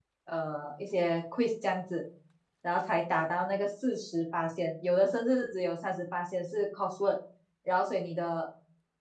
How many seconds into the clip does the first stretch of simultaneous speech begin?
none

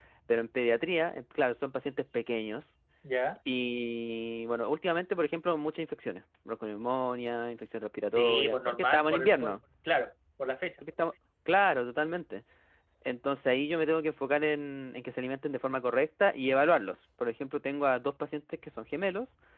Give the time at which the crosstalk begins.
8.0 s

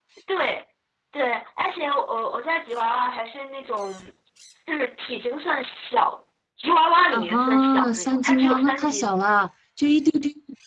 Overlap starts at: 7.1 s

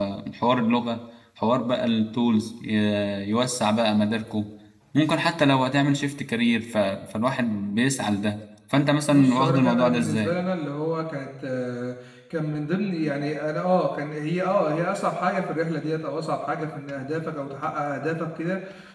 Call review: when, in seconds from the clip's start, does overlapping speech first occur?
9.1 s

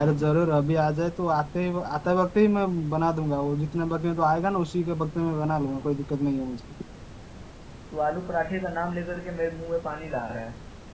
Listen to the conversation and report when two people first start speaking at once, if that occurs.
none

